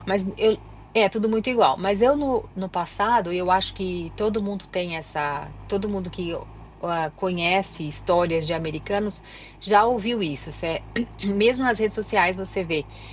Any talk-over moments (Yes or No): No